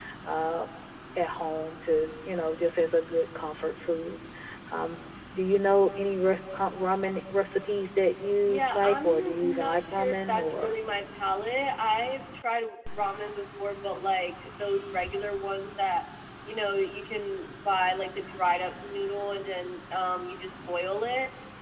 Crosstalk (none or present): present